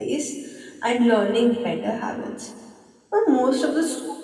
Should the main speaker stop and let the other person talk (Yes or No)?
No